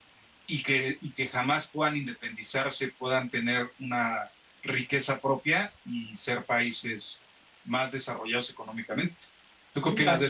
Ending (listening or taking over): taking over